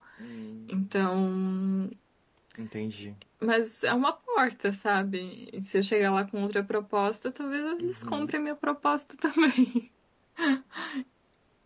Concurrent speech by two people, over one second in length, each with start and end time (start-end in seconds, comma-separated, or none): none